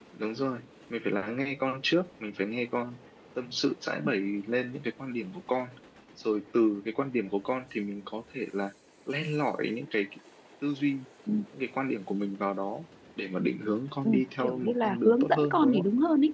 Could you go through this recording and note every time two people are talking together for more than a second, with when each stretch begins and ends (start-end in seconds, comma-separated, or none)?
14.0-15.8